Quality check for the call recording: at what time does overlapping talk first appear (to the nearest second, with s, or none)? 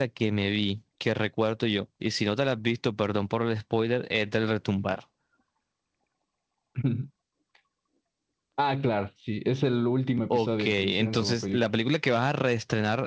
10 s